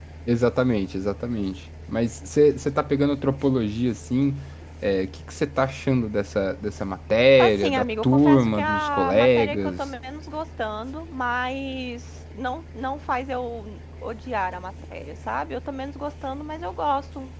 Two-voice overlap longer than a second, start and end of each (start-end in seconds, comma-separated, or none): 7.4-9.8